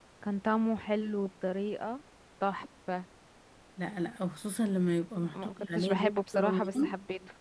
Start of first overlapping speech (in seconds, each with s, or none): 5.1 s